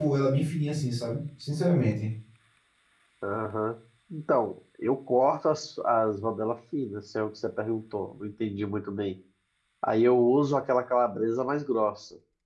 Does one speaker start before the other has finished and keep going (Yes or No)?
No